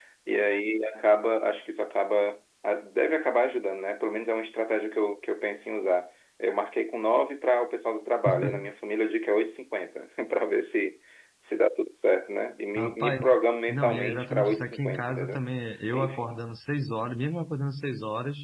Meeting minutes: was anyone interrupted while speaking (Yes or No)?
Yes